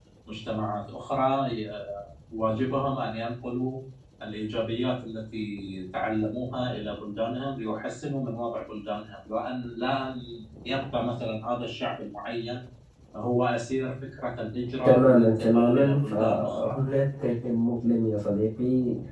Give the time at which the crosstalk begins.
14.8 s

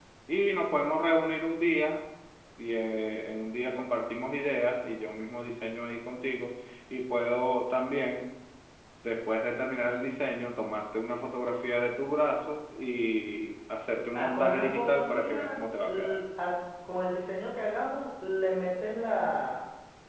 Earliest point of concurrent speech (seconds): 14.1 s

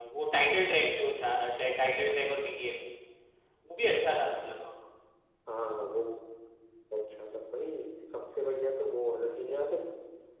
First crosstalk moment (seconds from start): none

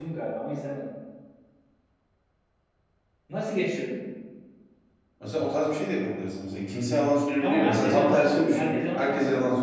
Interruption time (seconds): 7.4 s

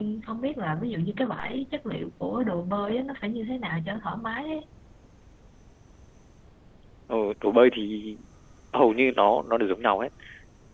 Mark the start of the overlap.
none

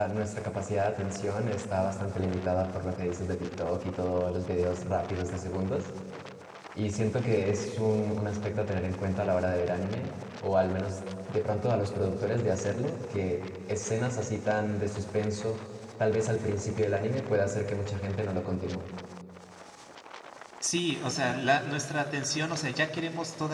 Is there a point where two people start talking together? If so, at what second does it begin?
none

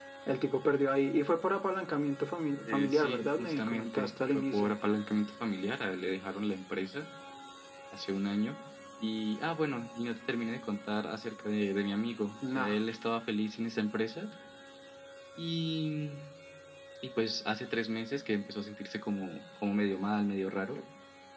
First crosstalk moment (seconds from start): 2.7 s

